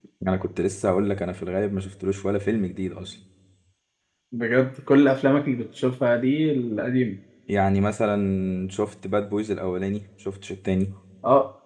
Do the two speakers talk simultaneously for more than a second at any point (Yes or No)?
No